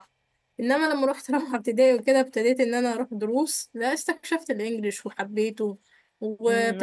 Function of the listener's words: taking over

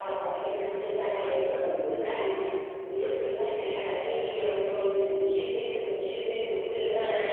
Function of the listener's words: taking over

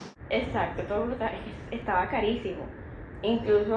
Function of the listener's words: listening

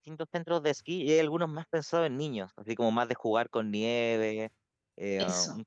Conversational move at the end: listening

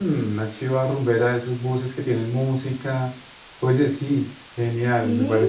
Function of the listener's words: taking over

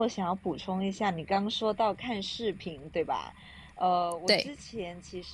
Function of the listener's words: listening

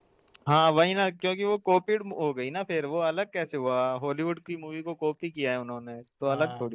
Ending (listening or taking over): taking over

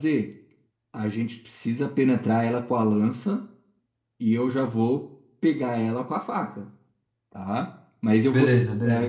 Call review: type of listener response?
listening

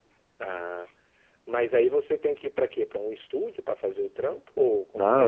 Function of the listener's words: taking over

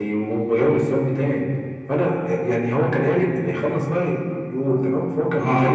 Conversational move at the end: listening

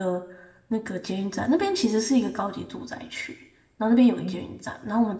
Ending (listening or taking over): listening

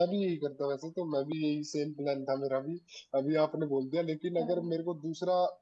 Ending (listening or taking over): listening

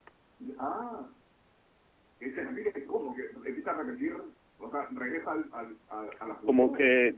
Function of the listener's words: taking over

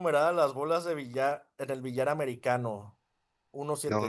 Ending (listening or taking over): listening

